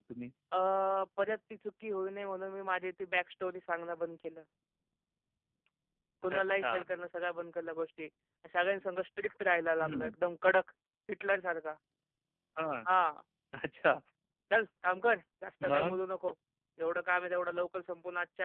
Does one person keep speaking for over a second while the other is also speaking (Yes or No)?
No